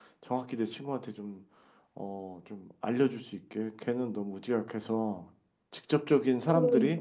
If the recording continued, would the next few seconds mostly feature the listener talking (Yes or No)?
No